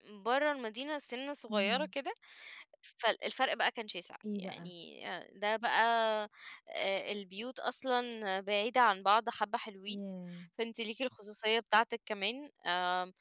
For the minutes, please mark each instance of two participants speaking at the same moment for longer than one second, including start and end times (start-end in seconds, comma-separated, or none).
none